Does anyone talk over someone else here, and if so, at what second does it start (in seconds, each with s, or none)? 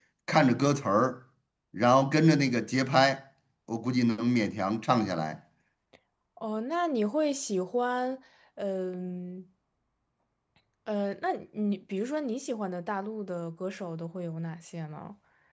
none